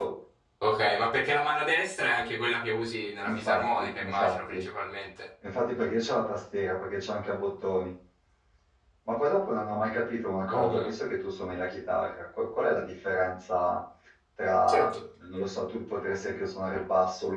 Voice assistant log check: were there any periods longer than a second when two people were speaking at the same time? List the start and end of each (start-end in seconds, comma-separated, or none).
3.2-4.5